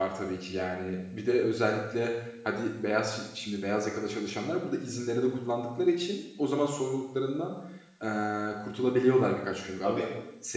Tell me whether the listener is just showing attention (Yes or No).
Yes